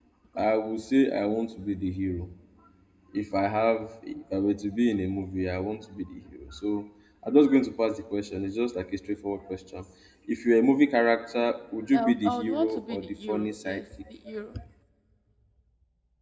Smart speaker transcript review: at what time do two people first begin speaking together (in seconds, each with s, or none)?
11.9 s